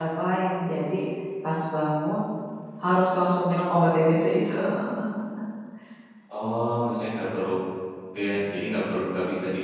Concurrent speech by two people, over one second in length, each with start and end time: none

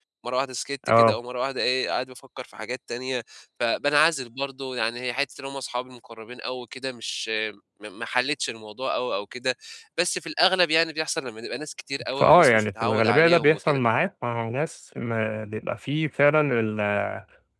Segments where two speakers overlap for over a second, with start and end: 12.2-13.8

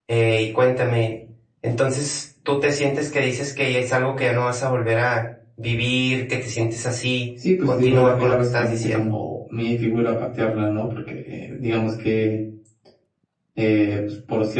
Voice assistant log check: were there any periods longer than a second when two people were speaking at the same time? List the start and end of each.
7.6-9.2

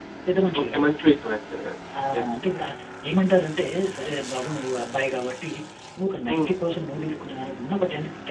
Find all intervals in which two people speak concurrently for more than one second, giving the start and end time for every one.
none

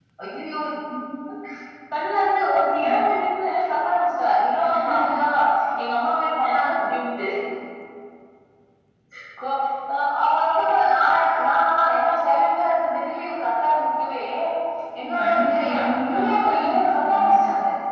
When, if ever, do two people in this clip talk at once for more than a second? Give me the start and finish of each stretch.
15.2-17.3

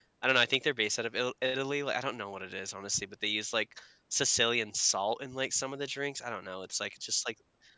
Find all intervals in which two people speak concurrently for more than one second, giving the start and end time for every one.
none

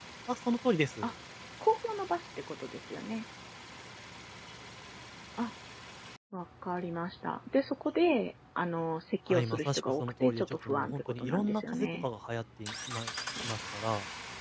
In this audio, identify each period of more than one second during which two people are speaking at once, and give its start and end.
9.3-12.1

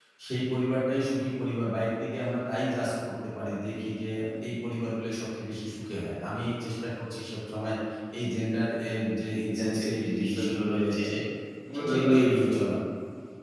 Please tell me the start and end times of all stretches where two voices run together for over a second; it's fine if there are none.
9.6-10.9

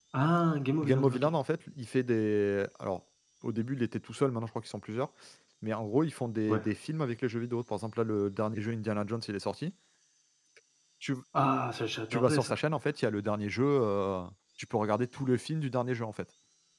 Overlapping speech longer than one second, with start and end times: none

